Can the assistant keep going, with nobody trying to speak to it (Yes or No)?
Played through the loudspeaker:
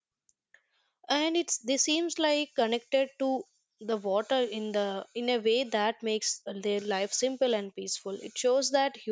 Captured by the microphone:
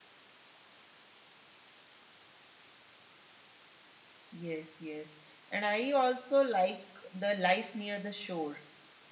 No